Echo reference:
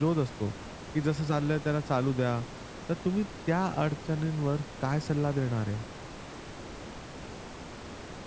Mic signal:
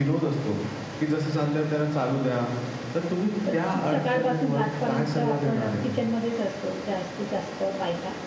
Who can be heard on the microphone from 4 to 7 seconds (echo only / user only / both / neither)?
both